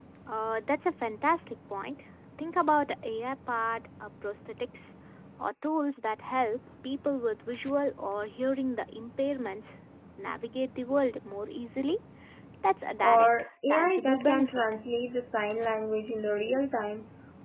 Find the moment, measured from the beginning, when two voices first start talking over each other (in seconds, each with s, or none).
13.0 s